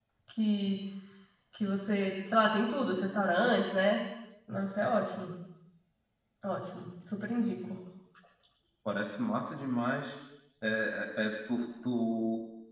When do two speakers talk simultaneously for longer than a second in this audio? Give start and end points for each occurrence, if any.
none

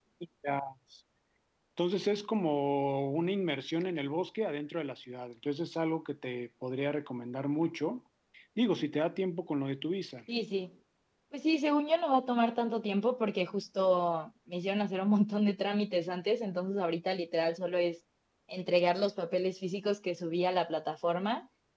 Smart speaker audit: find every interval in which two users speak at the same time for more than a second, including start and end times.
none

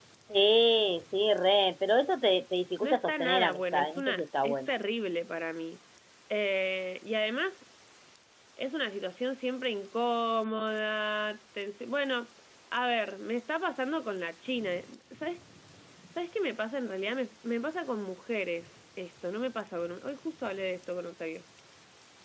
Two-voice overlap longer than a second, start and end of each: 2.8-4.7

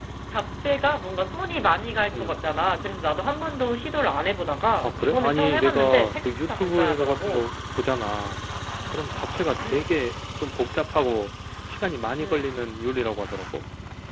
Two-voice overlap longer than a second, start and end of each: 4.8-7.5

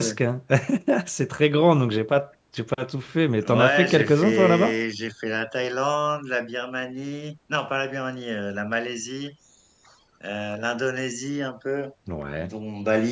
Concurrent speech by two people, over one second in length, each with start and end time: 3.4-4.8

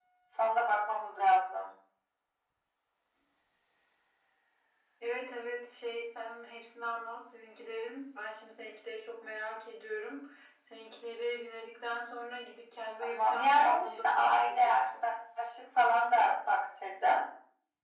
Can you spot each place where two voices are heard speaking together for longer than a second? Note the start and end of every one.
13.0-14.8

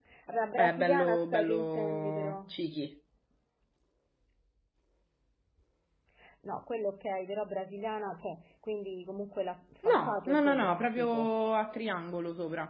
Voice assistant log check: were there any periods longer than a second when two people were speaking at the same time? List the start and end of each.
0.6-2.4, 9.9-11.3

